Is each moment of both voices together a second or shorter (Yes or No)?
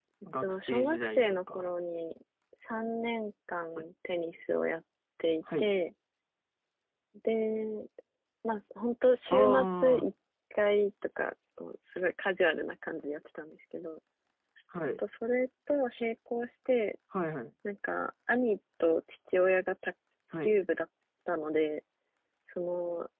No